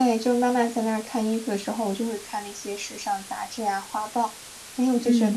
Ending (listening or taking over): taking over